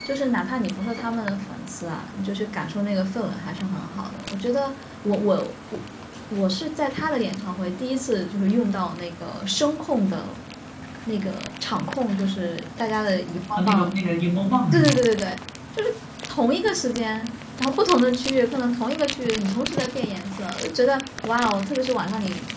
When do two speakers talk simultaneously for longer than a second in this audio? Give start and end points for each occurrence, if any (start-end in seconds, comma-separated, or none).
none